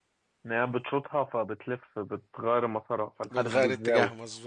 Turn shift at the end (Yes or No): Yes